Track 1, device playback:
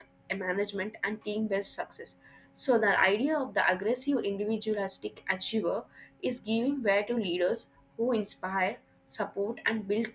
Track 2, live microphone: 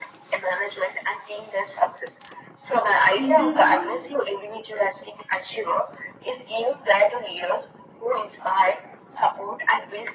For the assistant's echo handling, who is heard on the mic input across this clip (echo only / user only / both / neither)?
both